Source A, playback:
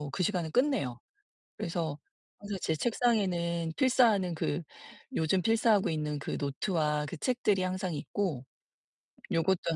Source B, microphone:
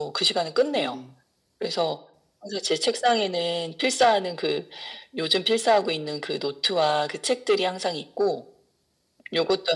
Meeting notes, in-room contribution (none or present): present